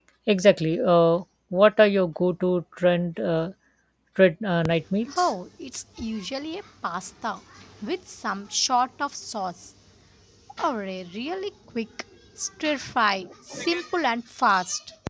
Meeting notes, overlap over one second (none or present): none